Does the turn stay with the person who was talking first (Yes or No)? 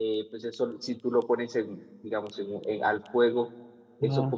Yes